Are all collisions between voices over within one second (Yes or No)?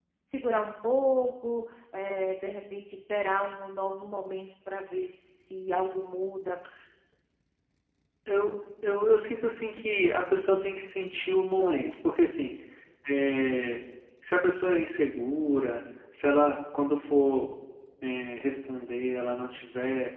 Yes